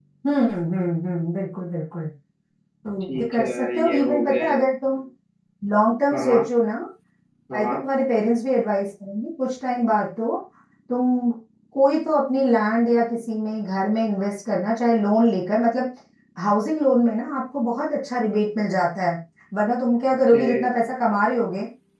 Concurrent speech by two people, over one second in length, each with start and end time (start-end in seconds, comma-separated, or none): 3.1-4.6